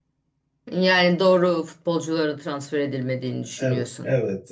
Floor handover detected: Yes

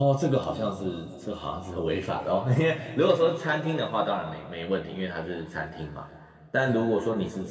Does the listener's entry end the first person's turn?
No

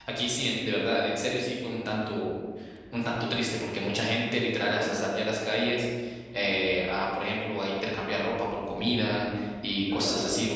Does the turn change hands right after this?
No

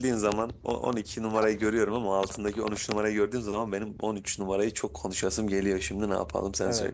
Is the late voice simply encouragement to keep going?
No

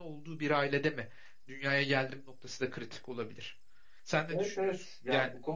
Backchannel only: No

